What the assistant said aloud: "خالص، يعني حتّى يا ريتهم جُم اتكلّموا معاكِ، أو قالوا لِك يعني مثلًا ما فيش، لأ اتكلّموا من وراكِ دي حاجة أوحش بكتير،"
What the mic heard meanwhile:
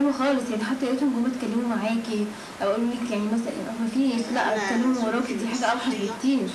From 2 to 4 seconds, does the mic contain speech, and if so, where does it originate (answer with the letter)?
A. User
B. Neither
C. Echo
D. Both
C